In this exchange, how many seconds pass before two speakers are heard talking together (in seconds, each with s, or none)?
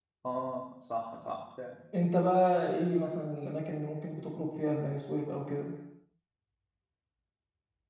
none